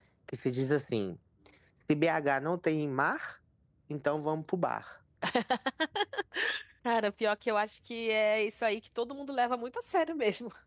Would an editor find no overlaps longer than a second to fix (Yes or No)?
Yes